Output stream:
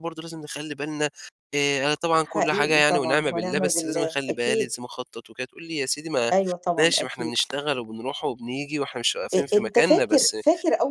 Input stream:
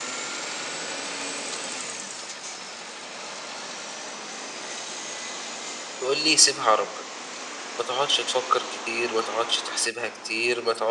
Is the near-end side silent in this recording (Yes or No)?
No